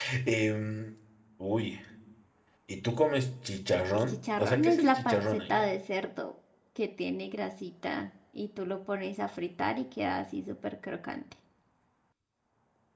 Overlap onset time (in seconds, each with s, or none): 3.9 s